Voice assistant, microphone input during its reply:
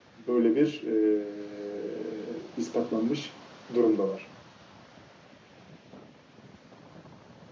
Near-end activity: none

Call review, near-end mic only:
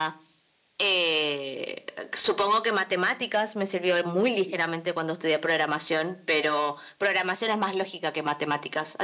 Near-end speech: none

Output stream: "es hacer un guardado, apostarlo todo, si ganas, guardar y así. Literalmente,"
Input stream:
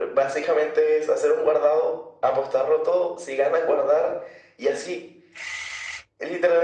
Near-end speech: none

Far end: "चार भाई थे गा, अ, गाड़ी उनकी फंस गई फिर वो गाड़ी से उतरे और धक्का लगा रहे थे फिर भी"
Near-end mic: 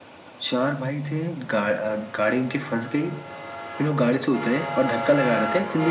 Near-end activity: none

